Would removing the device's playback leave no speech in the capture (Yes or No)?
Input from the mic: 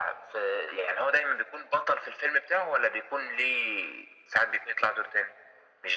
Yes